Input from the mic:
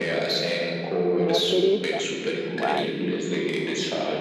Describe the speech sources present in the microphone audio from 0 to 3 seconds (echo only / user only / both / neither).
both